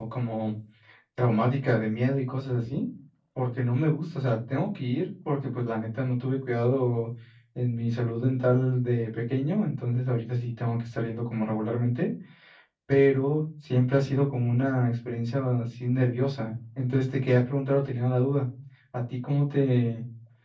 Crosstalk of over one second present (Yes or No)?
No